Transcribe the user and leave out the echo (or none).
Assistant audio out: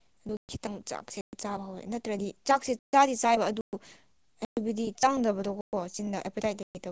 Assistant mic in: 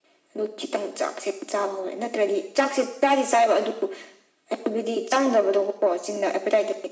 none